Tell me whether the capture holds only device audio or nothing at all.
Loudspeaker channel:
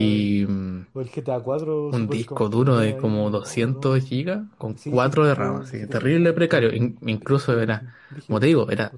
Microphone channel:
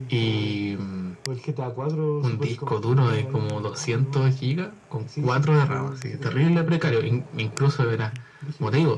Yes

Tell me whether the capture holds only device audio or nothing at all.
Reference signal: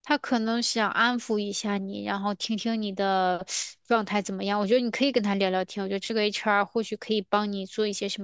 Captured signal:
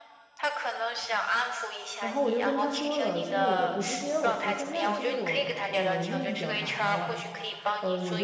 No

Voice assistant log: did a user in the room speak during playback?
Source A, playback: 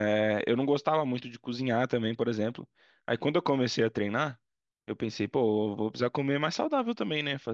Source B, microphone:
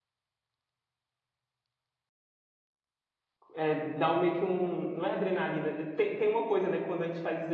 Yes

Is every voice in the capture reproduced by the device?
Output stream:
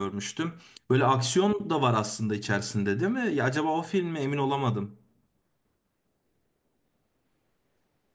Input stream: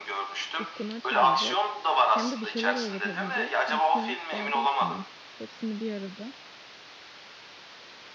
No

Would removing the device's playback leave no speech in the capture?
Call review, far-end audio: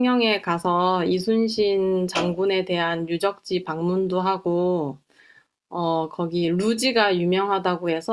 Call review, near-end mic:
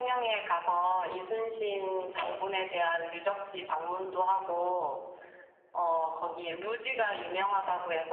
Yes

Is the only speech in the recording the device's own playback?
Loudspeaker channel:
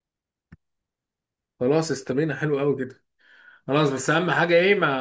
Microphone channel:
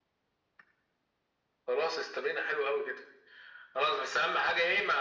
Yes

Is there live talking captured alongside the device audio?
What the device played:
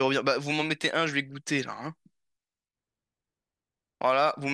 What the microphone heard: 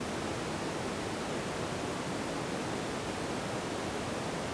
No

